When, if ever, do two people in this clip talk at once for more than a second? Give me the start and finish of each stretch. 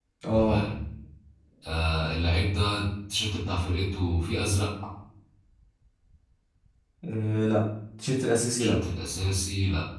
none

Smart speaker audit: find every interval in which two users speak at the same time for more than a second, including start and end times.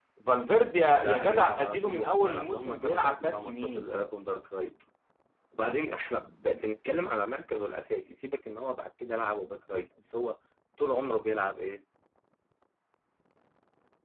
1.0-3.9

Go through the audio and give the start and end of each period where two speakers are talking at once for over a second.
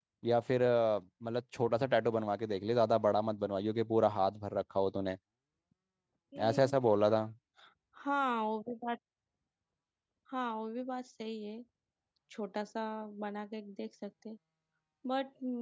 none

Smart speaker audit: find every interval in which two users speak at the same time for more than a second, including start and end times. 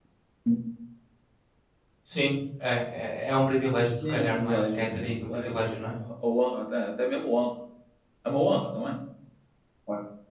3.9-5.8

